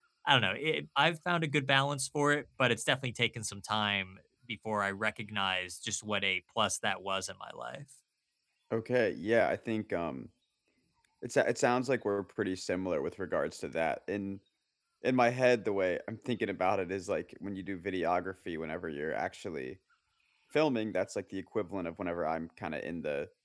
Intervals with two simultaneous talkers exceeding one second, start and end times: none

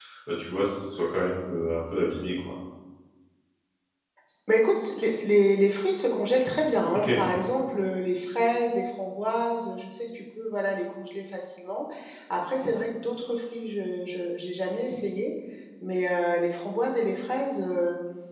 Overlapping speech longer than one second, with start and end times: none

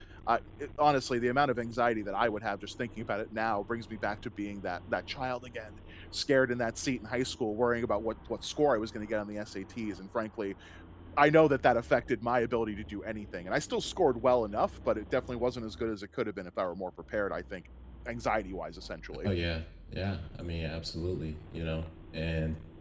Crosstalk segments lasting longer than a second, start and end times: none

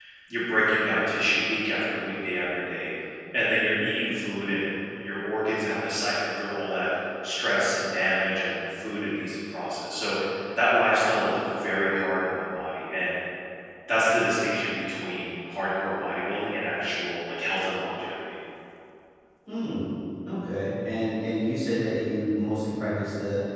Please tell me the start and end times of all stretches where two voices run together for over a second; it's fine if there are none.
none

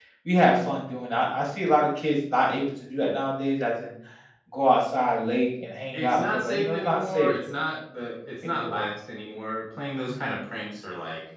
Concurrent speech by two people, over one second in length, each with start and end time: 5.9-7.3

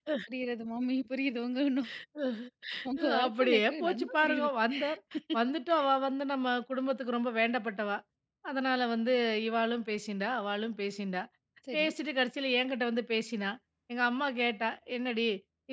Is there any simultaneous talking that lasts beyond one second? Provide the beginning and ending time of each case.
3.0-4.5

